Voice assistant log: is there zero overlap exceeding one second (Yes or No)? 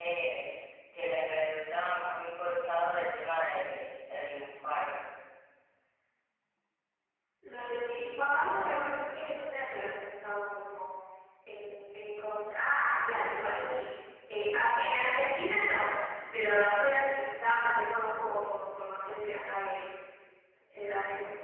No